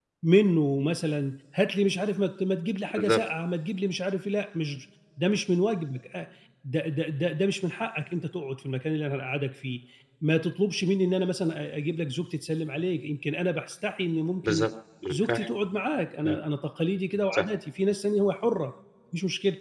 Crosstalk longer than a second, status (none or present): none